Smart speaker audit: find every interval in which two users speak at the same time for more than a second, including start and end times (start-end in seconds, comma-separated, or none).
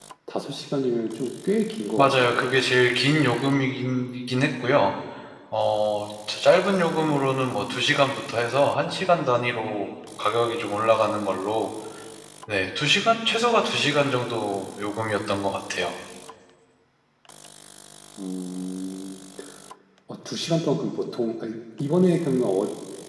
none